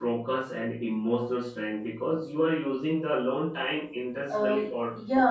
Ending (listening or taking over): taking over